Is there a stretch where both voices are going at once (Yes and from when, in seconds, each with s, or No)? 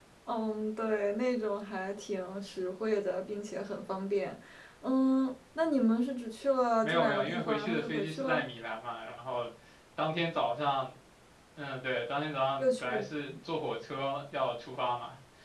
Yes, from 6.8 s